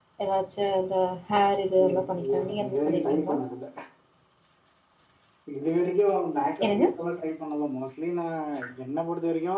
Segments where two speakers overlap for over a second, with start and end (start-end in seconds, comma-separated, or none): 1.8-3.4